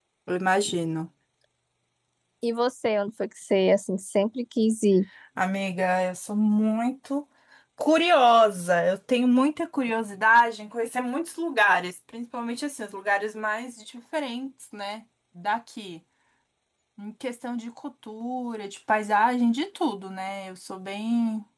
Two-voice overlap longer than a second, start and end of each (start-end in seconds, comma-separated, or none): none